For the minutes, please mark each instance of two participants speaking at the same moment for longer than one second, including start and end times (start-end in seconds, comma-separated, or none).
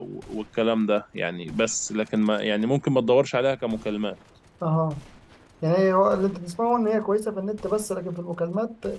none